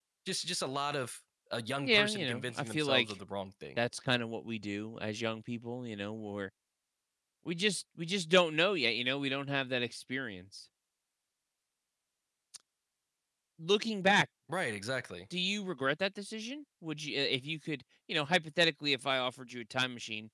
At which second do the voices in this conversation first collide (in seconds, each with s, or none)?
1.8 s